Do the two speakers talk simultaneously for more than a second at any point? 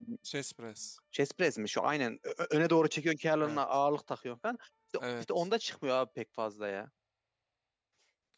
No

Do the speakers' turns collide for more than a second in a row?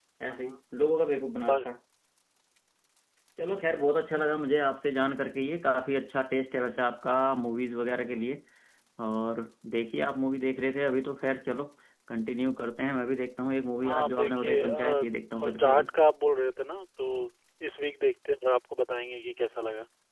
Yes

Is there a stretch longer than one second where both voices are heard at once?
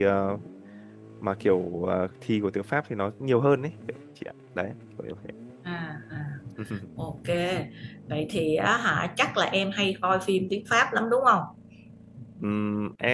No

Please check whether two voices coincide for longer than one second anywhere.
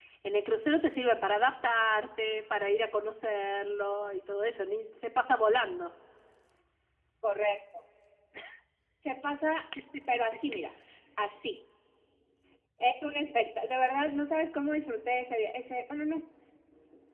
No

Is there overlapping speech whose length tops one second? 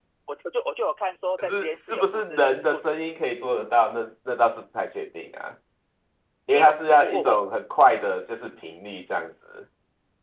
Yes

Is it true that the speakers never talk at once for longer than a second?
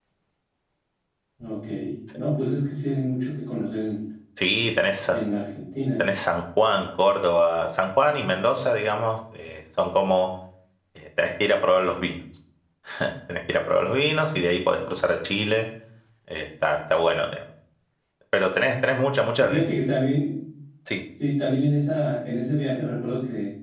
Yes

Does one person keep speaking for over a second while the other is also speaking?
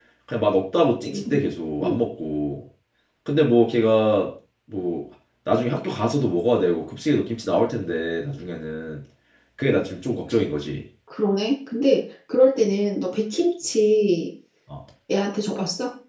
No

